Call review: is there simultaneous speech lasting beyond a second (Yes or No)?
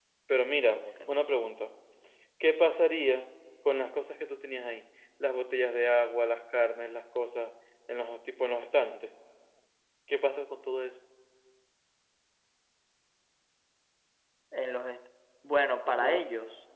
No